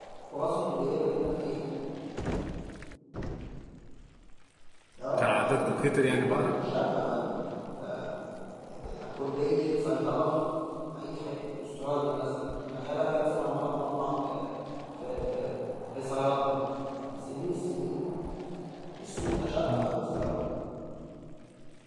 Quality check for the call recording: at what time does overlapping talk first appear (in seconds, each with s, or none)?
5.2 s